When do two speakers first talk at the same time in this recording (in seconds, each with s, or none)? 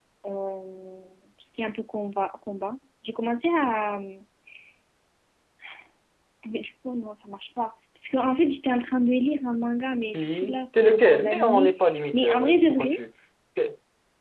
10.1 s